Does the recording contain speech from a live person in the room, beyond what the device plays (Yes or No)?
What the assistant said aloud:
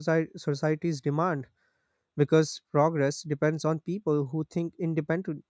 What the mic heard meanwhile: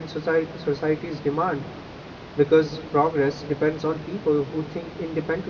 No